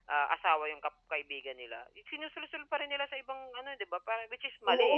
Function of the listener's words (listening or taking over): taking over